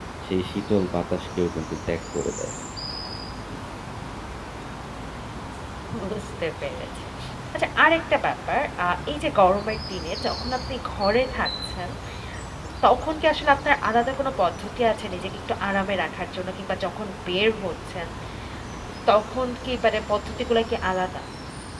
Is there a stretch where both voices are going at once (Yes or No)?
No